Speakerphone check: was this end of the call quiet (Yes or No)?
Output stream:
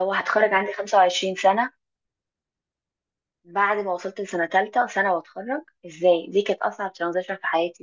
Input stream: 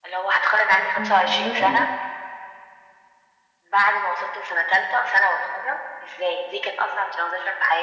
No